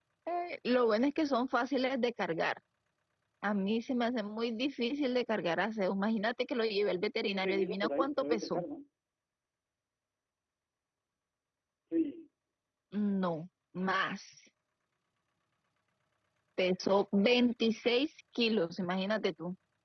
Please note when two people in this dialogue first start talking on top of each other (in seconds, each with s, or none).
7.2 s